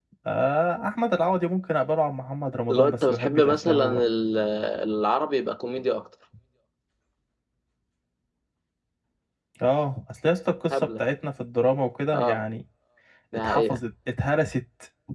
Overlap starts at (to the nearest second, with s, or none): 3 s